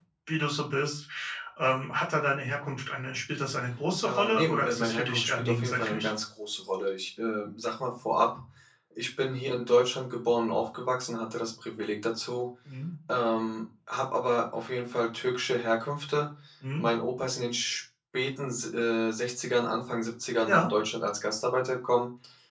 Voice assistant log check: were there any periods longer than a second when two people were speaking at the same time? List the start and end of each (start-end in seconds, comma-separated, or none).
4.0-6.1